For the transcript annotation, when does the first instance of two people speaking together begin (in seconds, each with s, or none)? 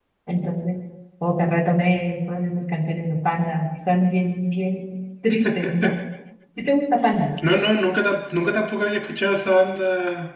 none